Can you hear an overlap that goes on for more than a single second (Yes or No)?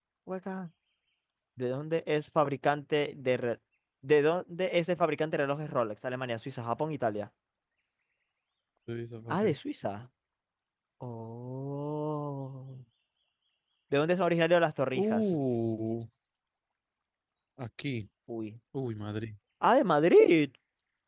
No